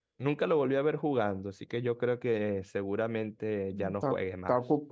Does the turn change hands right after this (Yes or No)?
Yes